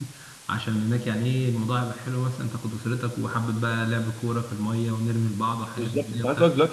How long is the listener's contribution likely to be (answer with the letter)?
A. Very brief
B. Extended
B